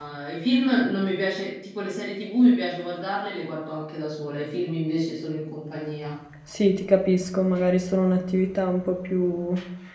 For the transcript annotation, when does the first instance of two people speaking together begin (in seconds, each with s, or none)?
none